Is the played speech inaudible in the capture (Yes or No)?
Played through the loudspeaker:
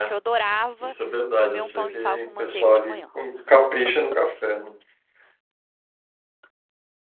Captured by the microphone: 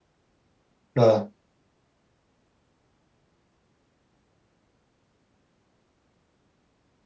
Yes